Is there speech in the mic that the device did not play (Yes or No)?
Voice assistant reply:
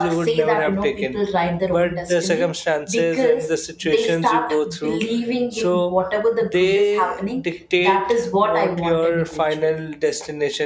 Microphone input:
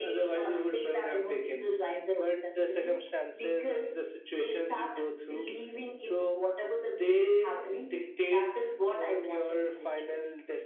No